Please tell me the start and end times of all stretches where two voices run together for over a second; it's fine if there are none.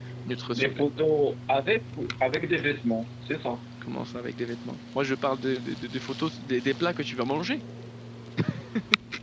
none

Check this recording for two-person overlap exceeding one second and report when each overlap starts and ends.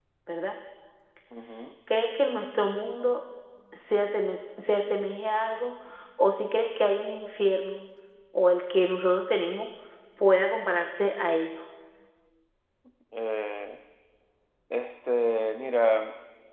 none

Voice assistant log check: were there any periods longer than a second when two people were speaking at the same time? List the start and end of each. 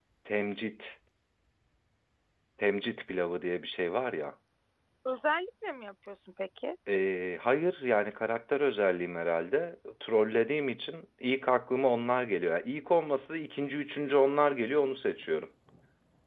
none

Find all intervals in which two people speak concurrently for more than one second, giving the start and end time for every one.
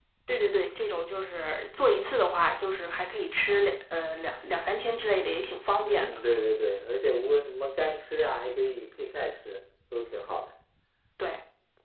none

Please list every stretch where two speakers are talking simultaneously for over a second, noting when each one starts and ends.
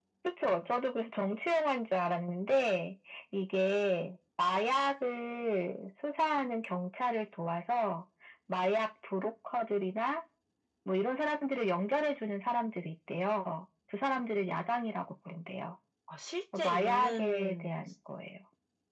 16.6-17.8

